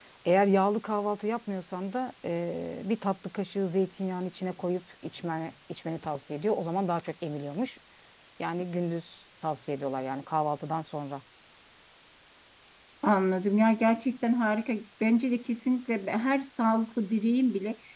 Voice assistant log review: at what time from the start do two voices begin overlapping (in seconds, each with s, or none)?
none